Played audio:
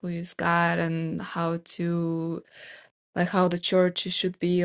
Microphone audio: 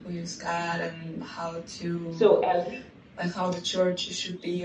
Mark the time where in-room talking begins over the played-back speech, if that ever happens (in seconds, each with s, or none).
2.1 s